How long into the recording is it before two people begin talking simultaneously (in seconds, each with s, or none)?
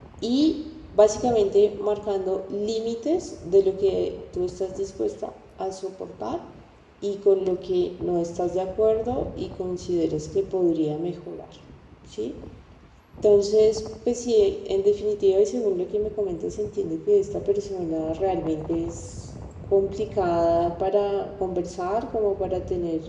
none